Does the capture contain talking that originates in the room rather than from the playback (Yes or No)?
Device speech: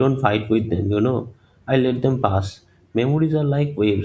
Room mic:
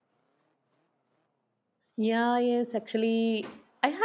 Yes